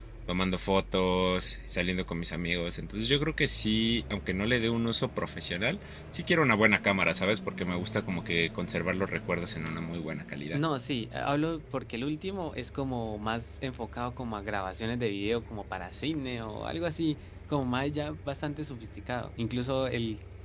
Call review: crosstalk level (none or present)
none